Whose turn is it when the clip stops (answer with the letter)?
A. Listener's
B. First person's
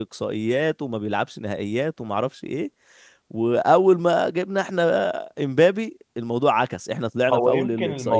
A